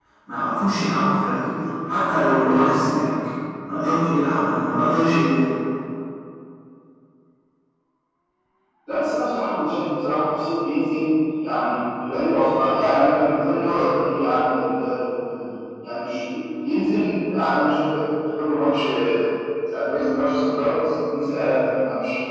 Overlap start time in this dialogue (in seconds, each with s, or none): none